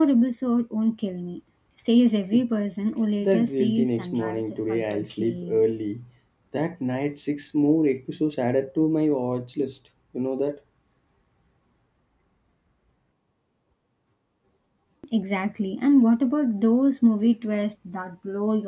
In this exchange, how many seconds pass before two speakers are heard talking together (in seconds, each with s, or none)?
3.2 s